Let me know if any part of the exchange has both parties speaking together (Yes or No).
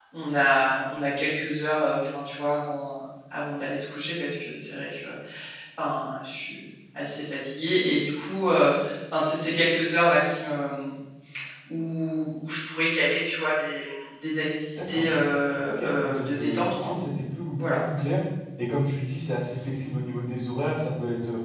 Yes